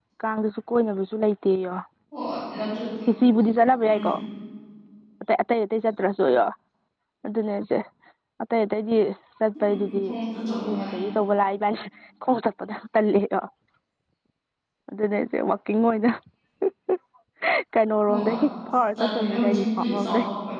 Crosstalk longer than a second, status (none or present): present